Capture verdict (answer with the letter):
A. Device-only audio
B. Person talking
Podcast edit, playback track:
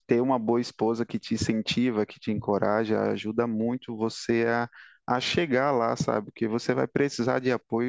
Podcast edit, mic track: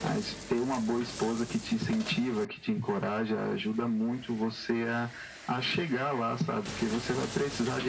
A